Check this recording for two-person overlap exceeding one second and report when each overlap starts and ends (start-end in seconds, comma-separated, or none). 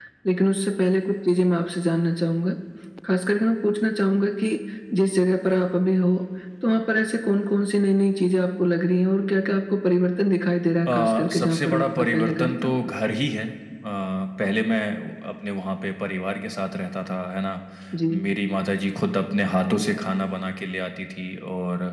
10.9-12.8